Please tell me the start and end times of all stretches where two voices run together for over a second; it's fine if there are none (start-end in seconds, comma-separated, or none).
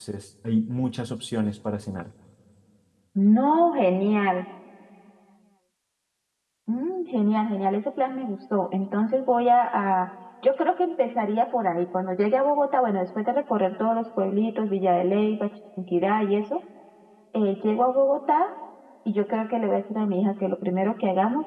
none